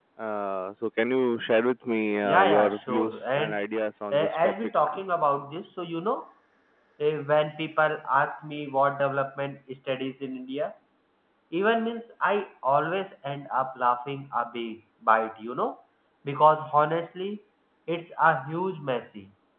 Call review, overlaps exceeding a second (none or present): present